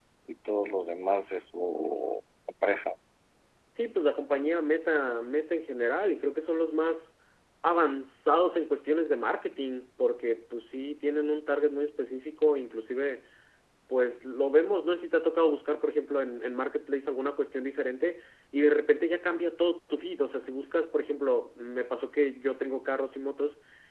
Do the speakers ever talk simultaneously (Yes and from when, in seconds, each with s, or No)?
No